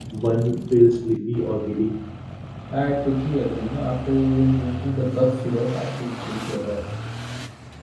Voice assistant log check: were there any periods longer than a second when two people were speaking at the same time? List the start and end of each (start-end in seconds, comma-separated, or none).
none